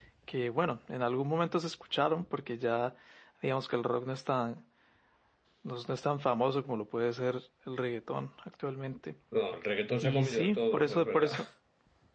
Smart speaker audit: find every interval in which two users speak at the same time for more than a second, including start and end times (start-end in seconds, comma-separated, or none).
10.0-11.3